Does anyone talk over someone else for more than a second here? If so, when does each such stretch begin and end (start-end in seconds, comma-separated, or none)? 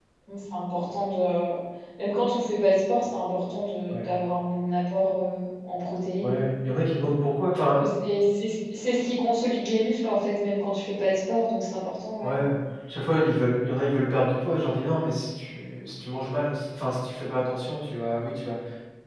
none